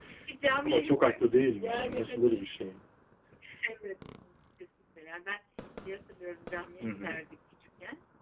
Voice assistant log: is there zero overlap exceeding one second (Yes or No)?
No